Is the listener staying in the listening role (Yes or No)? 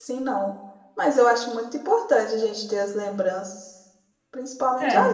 Yes